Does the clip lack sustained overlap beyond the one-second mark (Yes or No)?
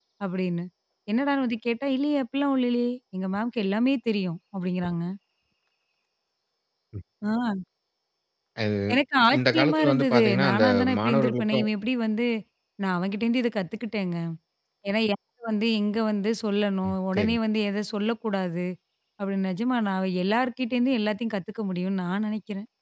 No